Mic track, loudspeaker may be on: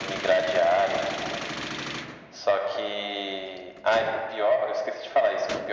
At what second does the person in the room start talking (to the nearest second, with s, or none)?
none